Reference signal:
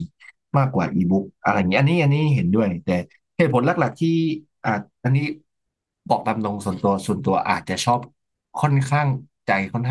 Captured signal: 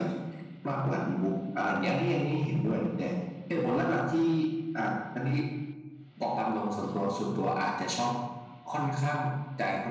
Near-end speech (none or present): none